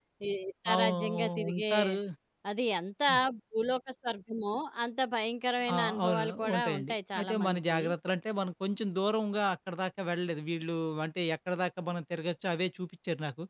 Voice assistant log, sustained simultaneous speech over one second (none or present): present